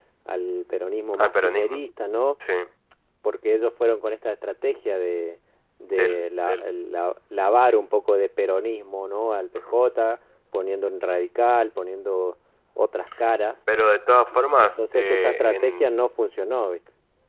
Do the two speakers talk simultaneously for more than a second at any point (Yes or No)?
Yes